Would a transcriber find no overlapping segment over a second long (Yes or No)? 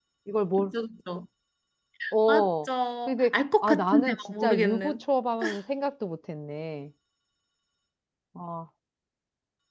No